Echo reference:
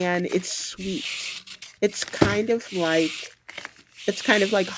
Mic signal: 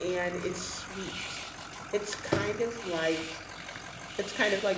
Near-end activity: none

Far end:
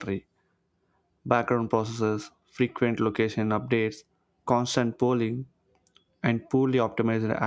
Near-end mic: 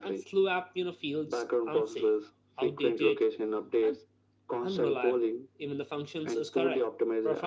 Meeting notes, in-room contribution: present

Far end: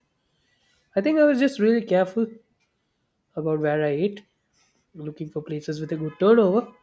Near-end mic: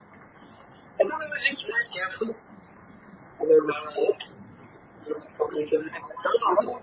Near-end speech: none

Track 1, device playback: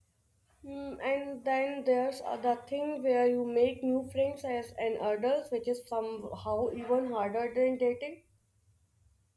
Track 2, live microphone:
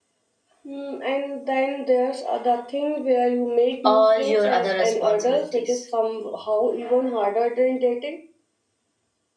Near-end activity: present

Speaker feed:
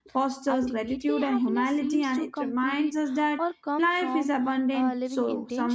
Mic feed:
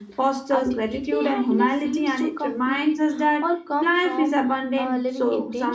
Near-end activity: none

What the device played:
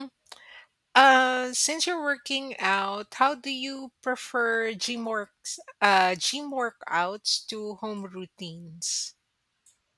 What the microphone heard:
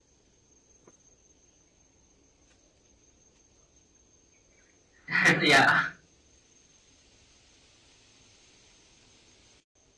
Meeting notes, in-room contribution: present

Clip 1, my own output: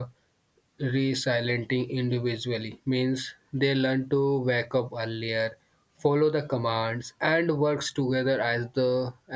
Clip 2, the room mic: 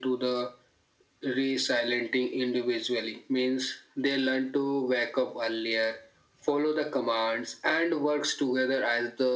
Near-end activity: none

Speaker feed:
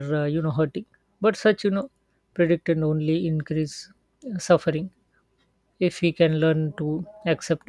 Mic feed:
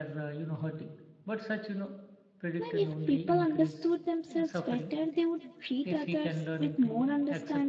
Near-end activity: present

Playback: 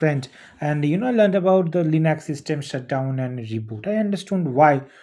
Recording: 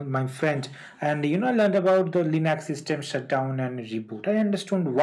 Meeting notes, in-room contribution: none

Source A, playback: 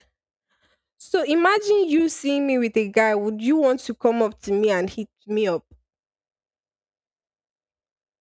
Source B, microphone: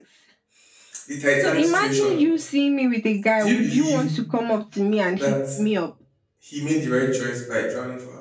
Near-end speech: present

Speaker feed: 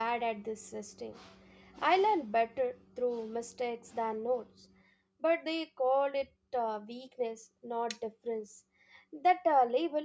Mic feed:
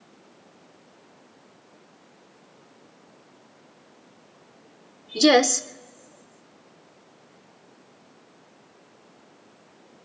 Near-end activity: present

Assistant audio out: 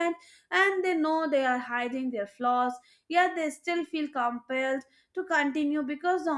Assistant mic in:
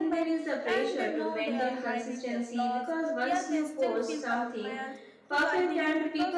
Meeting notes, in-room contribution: present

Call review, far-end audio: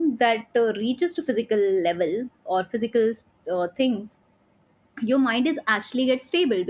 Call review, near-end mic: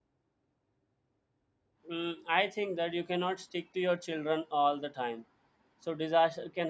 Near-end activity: present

